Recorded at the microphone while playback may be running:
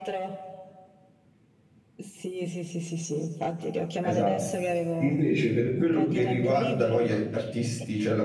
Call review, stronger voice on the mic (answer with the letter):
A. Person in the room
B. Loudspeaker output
A